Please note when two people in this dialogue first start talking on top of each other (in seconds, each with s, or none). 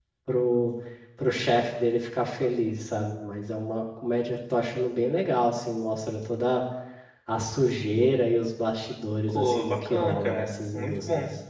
9.3 s